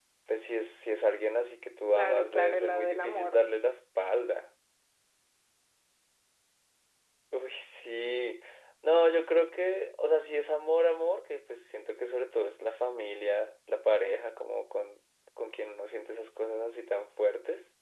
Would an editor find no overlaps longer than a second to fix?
No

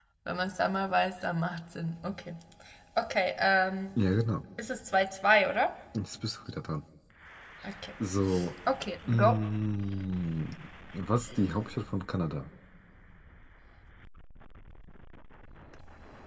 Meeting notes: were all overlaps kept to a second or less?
Yes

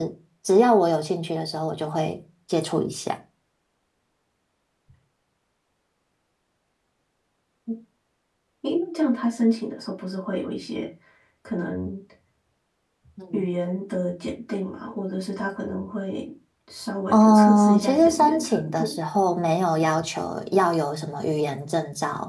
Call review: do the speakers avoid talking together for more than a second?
No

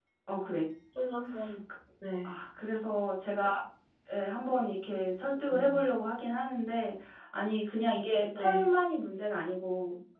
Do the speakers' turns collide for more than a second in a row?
No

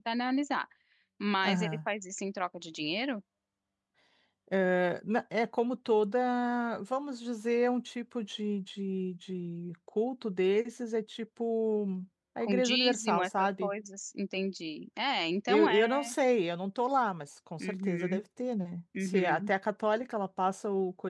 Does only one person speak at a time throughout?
No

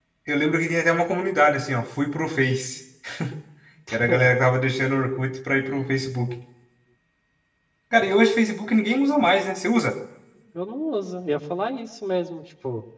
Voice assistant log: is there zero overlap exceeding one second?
Yes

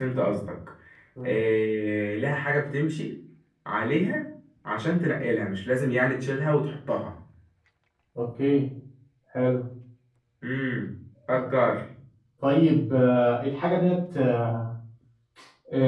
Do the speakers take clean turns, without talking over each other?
Yes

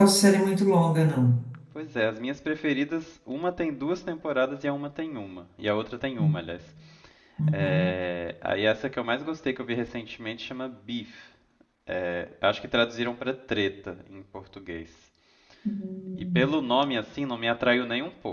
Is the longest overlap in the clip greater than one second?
No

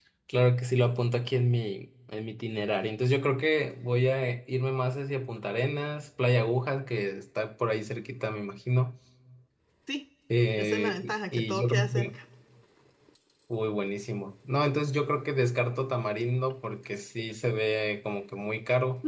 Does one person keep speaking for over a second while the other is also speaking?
Yes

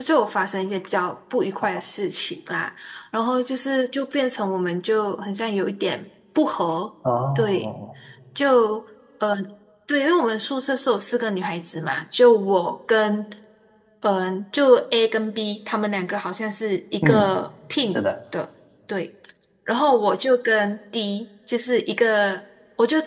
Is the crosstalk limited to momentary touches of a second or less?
Yes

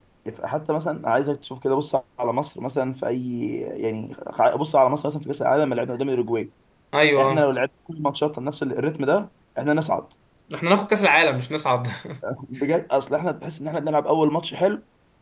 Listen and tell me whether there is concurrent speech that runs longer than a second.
No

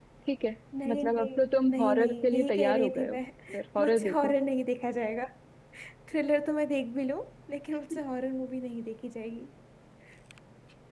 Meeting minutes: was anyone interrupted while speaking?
Yes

